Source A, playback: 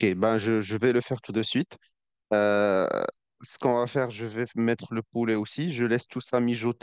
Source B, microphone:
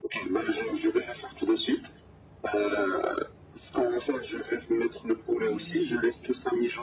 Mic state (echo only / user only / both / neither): both